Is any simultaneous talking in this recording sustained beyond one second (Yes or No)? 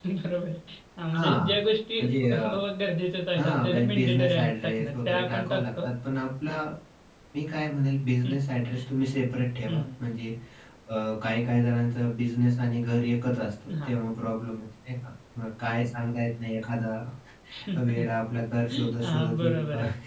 Yes